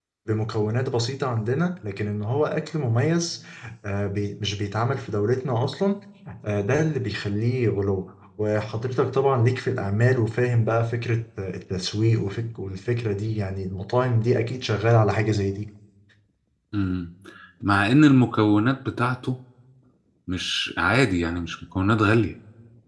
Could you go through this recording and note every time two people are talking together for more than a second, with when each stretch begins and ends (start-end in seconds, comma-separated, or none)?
none